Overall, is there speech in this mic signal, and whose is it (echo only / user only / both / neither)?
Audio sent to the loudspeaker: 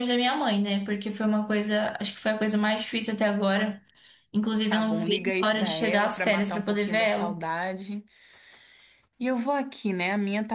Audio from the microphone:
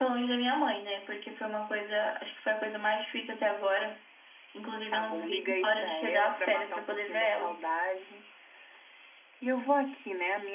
echo only